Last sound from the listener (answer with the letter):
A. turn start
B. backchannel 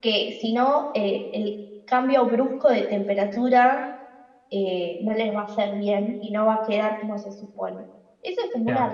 B